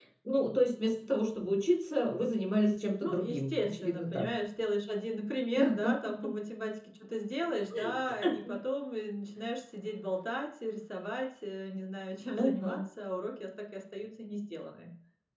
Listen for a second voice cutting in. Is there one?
Yes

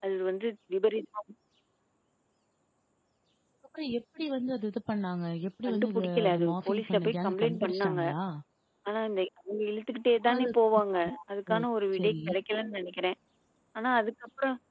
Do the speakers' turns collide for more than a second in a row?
Yes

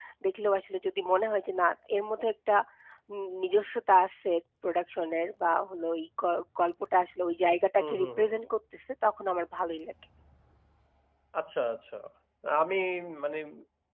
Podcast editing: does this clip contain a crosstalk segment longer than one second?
No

